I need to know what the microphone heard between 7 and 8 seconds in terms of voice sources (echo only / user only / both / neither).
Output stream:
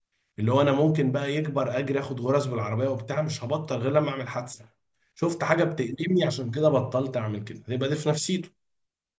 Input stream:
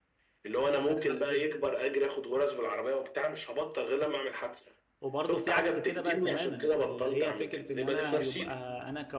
both